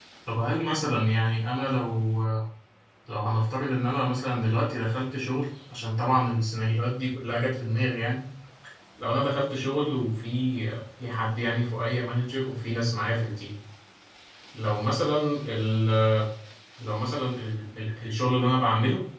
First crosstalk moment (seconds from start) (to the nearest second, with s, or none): none